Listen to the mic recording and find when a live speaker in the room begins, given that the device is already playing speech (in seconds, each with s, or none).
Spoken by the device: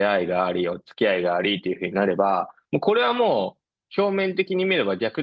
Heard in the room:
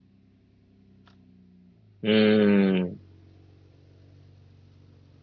2.0 s